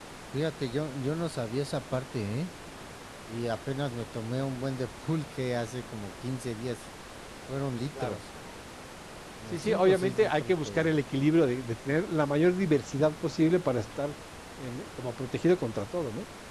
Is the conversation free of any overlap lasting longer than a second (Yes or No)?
No